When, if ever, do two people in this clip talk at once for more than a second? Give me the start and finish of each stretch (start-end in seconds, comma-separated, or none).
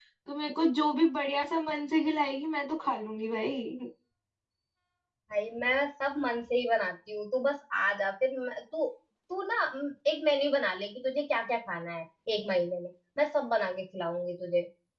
none